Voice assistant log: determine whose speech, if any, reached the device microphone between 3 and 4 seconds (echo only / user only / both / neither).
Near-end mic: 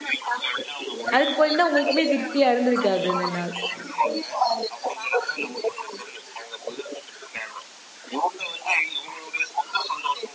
both